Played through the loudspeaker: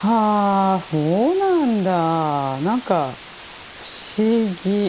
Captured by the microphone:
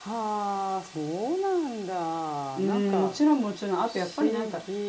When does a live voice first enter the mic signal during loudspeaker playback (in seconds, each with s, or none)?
2.6 s